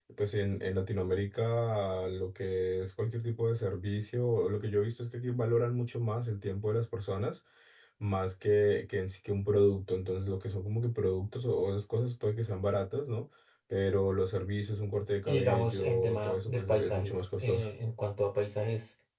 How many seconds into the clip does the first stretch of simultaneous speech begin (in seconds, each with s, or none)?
15.2 s